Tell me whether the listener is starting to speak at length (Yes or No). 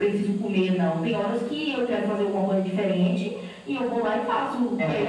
No